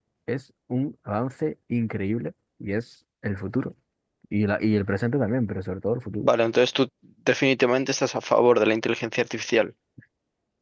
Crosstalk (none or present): none